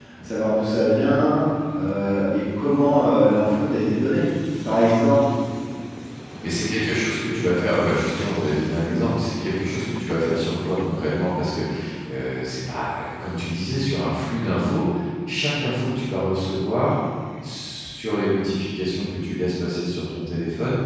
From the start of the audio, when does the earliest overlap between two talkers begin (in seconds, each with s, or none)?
none